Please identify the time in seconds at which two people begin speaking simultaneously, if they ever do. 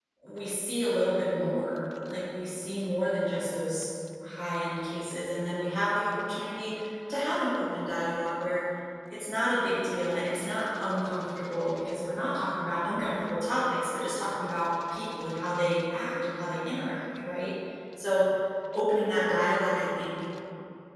none

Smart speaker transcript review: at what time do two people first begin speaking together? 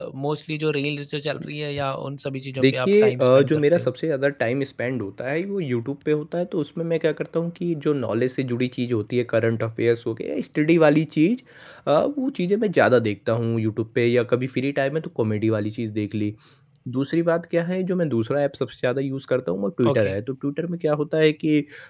2.6 s

